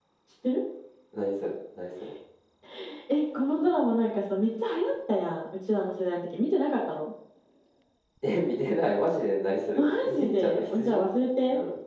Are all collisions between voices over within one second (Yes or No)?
No